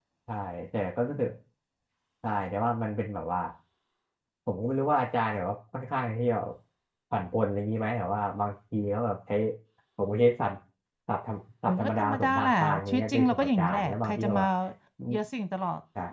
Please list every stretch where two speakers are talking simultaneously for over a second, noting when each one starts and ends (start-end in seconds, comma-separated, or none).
11.7-14.4